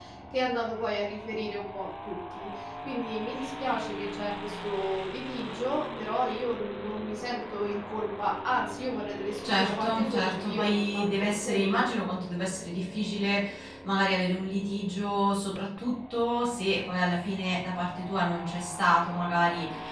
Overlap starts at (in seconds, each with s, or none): 9.4 s